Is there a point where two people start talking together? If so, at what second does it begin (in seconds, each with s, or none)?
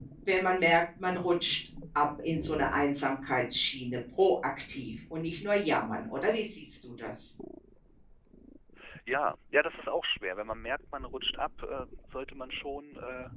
none